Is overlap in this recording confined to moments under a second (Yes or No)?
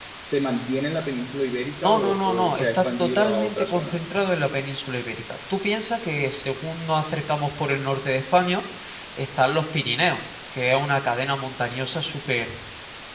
No